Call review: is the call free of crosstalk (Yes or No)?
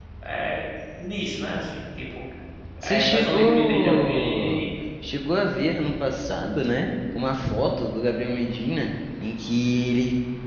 No